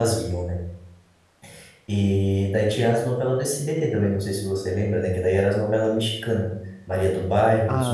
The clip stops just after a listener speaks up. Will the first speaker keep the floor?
No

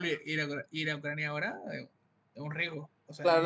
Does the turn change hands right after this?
Yes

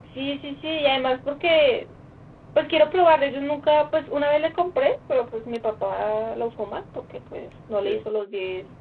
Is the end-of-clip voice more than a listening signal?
No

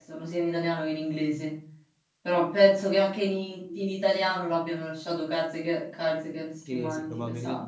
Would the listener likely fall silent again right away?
No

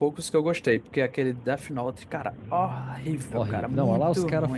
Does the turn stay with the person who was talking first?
No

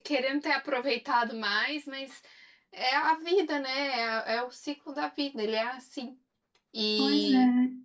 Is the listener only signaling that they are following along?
No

